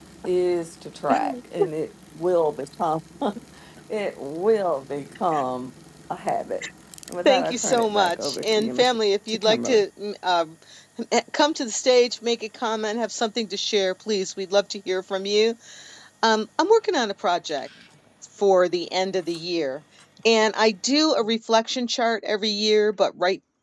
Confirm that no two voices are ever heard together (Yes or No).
No